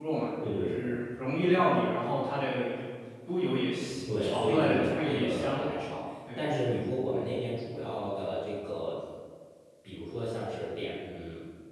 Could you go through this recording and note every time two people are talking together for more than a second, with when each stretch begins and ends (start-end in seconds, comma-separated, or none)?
4.2-5.6